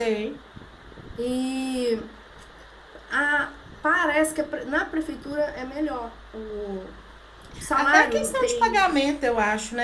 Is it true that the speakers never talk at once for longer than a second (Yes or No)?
No